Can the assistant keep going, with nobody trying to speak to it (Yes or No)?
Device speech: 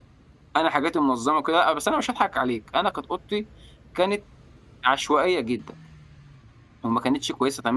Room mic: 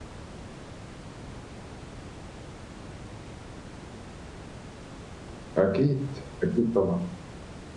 No